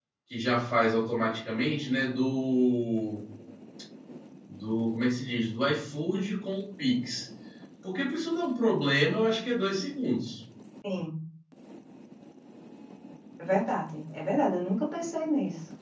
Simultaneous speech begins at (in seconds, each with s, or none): none